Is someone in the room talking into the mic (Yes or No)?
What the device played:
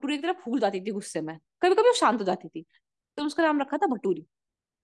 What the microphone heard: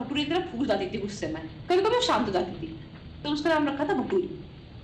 No